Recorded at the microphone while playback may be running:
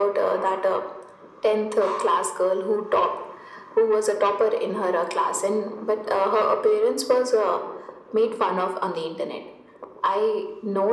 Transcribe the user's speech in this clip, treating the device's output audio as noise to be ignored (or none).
none